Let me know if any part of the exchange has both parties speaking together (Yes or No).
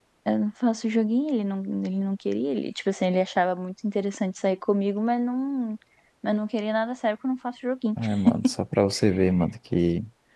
No